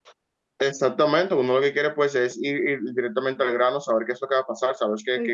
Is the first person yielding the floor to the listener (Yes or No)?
No